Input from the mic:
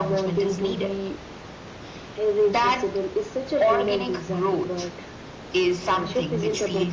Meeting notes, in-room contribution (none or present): none